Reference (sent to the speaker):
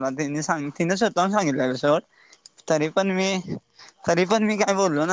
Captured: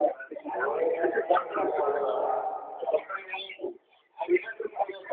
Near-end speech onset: 0.5 s

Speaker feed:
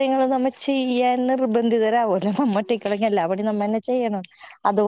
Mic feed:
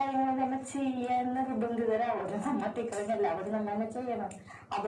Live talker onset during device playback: none

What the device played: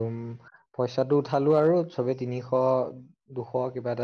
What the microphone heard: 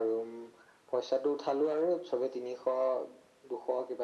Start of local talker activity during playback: none

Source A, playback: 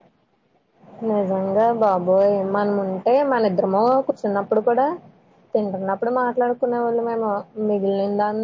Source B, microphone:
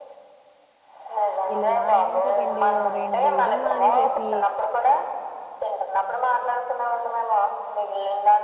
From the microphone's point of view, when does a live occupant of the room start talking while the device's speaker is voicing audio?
1.5 s

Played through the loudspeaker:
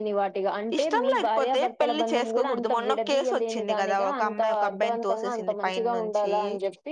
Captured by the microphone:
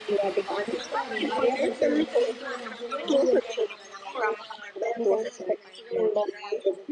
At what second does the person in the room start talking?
0.7 s

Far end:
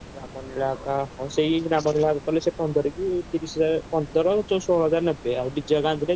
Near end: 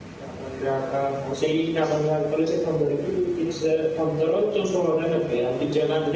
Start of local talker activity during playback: none

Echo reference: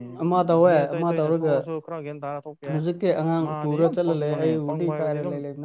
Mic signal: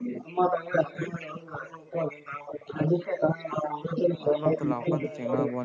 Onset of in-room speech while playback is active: 4.3 s

